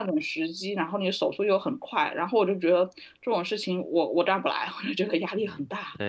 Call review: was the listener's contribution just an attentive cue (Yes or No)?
No